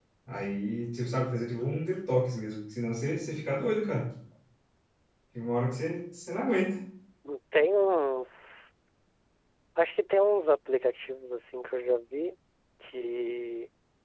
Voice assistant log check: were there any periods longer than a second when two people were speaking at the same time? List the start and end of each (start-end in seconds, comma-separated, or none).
none